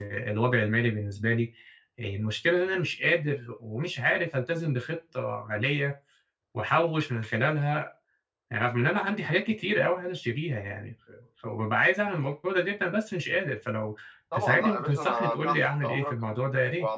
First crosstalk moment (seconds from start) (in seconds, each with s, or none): 14.3 s